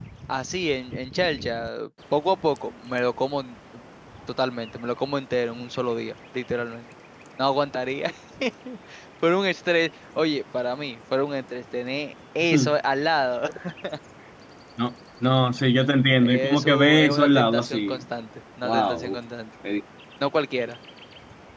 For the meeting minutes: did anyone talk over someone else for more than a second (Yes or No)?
Yes